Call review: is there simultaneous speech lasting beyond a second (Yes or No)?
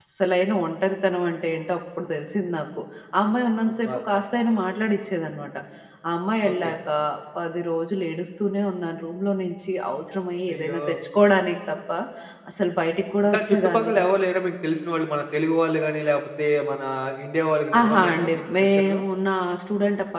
Yes